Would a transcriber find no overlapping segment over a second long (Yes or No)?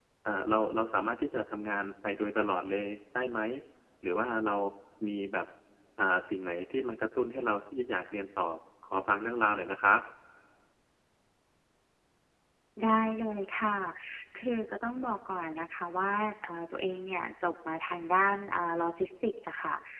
Yes